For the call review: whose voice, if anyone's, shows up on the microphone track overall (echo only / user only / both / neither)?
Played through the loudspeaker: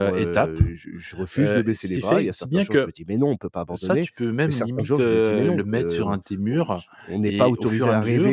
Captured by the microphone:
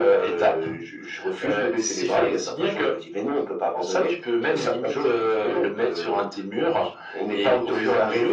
echo only